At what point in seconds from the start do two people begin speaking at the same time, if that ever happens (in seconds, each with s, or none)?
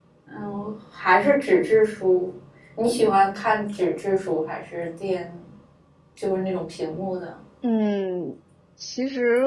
none